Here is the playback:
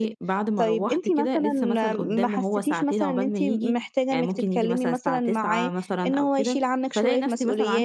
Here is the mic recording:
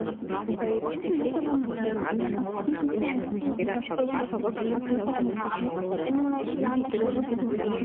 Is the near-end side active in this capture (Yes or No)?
Yes